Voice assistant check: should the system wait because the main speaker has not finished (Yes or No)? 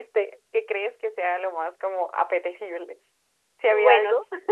No